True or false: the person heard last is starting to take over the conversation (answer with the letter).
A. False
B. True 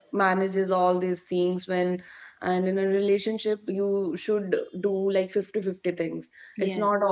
A